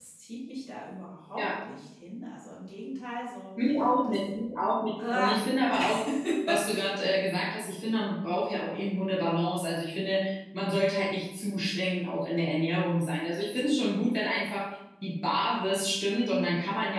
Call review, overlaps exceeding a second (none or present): none